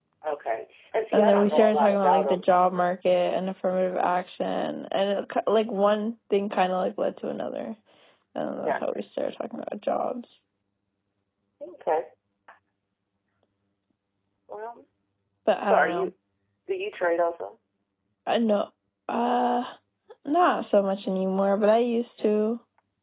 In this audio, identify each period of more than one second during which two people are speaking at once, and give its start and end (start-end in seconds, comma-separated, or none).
1.1-2.4